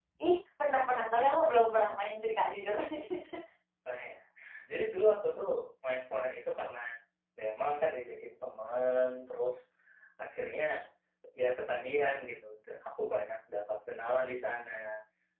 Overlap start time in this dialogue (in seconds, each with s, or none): none